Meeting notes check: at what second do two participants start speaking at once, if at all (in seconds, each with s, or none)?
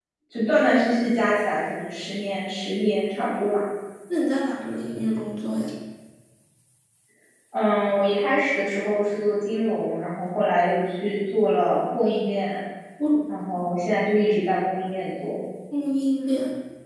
none